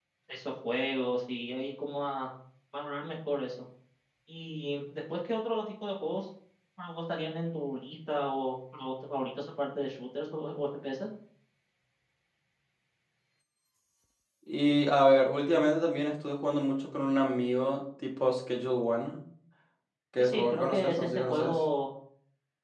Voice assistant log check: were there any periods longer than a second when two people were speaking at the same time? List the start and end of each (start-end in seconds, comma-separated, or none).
20.2-21.6